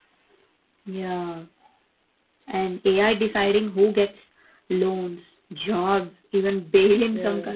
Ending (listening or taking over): listening